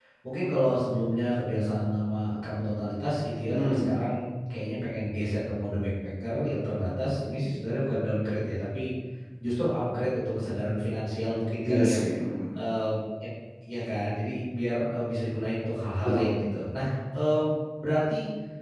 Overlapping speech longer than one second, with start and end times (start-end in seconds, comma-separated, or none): none